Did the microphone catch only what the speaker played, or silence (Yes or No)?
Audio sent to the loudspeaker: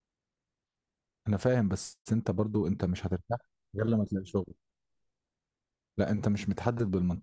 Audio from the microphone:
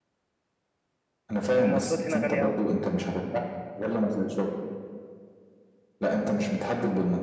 No